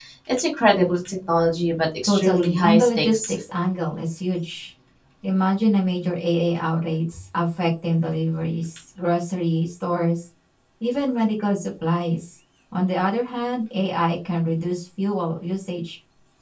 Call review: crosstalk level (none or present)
present